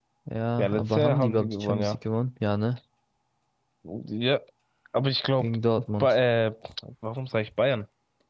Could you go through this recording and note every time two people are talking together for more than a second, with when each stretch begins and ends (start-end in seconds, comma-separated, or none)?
0.6-2.0